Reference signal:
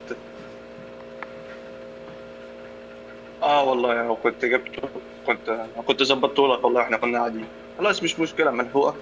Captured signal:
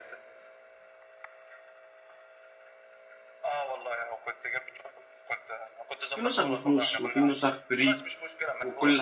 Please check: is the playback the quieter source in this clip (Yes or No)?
Yes